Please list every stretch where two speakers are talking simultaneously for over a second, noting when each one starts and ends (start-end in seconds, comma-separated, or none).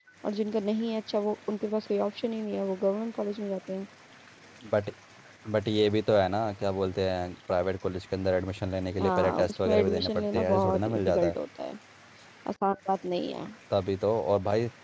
9.0-11.4